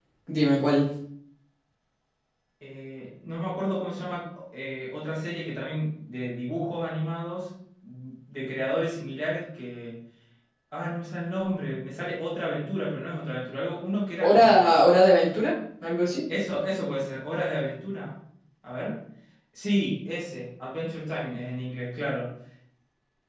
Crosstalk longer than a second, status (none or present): none